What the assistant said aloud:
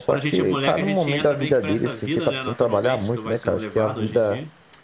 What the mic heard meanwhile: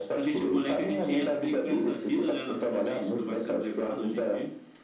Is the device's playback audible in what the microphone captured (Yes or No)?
Yes